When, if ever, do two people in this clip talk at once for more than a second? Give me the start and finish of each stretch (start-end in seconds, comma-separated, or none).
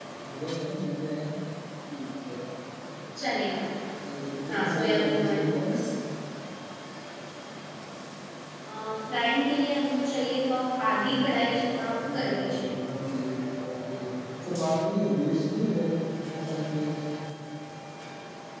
4.5-5.7, 11.0-12.7